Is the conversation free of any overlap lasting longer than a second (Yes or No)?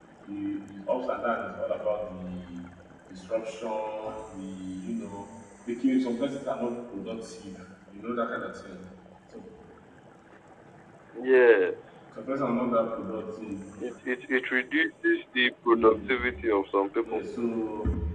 Yes